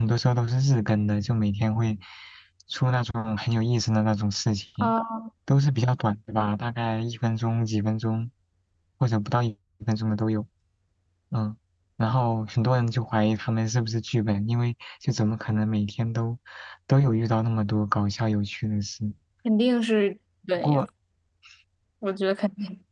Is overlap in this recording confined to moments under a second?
Yes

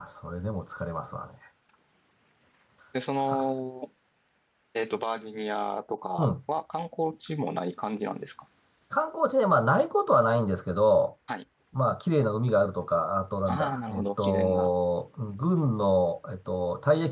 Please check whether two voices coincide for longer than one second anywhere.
Yes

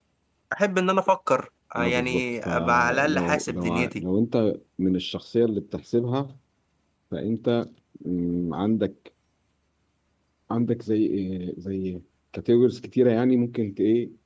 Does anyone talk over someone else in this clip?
Yes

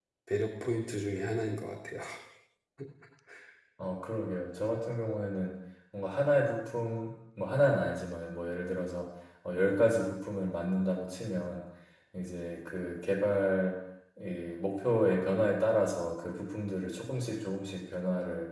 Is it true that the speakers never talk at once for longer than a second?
Yes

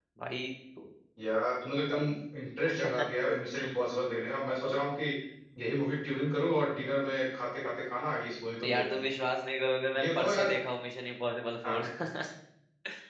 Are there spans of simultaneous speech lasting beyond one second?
No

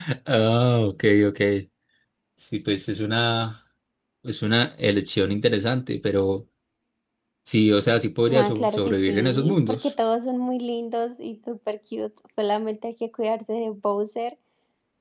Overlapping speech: Yes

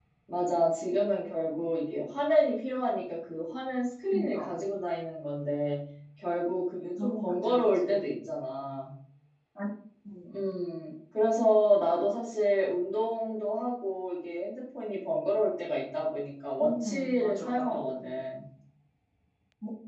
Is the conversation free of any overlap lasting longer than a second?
No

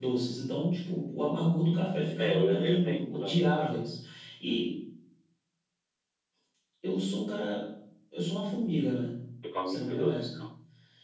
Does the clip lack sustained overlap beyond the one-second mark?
No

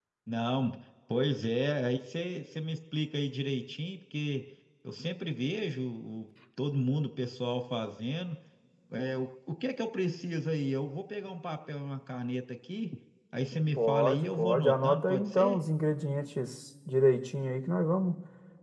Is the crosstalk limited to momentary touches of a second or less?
No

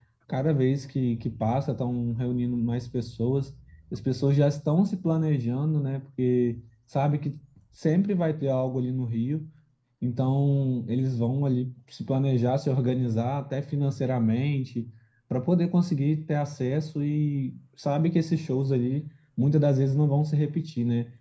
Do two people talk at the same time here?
No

